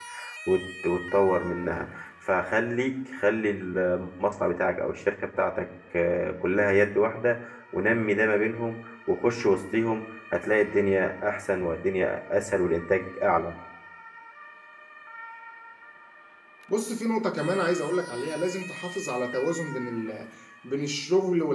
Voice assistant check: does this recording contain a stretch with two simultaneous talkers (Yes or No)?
No